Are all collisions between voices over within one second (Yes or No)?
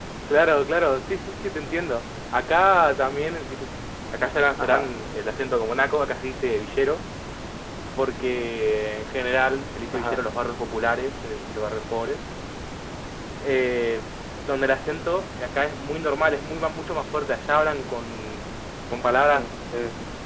Yes